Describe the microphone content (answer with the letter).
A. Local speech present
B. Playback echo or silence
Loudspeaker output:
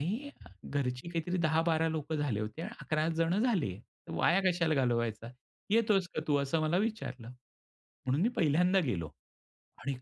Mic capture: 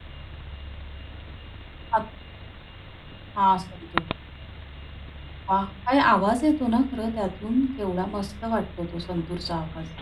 A